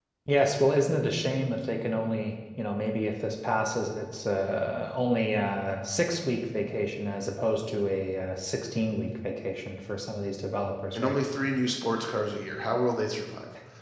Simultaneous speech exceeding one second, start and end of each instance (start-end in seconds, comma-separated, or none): none